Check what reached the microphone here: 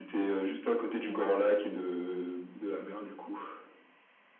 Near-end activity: none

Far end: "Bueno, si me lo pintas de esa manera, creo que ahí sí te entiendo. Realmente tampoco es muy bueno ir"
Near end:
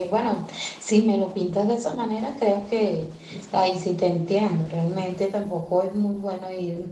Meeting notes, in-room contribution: none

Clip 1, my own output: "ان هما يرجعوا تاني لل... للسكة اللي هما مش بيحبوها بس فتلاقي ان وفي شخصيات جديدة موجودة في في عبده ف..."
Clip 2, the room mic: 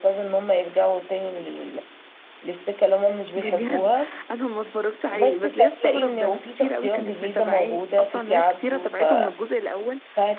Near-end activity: present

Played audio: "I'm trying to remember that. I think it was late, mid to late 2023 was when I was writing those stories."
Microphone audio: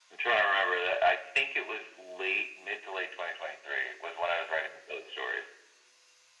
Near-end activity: none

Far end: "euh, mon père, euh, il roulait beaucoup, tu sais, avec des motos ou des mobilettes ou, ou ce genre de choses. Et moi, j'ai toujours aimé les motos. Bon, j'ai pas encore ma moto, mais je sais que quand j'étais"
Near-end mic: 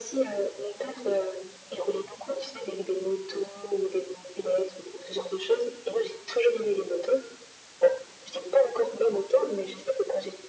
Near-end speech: none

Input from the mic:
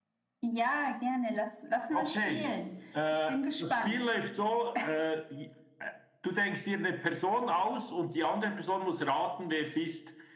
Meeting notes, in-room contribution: none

